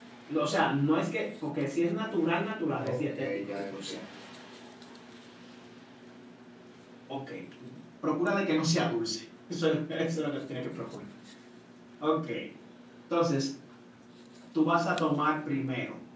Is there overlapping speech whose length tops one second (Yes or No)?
Yes